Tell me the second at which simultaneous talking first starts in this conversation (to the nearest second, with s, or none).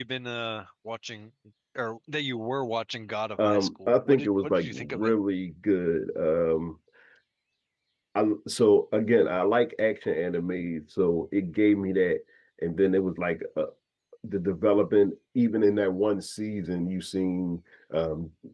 3 s